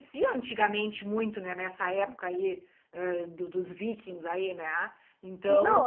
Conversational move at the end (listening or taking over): taking over